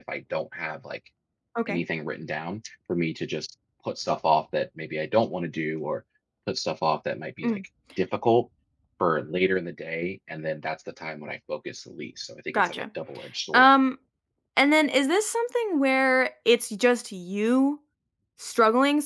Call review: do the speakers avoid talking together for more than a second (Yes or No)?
Yes